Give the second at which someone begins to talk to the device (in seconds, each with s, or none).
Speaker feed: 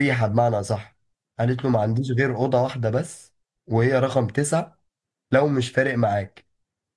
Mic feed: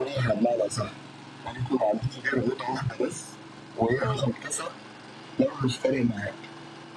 4.0 s